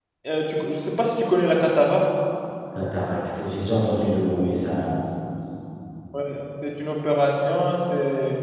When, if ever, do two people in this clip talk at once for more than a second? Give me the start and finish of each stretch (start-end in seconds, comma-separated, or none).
none